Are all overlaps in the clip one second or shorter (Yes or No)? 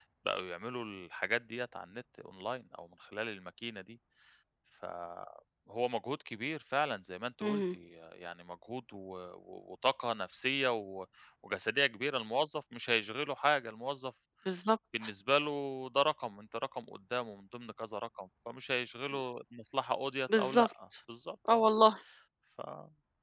Yes